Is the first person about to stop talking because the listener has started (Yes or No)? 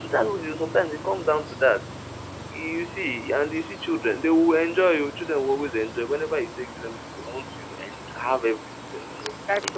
Yes